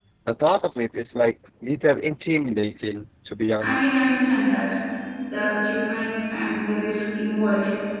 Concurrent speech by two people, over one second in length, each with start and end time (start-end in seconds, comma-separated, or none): none